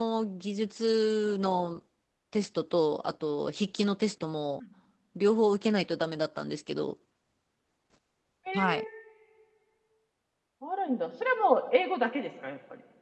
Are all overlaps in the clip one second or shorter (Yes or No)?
Yes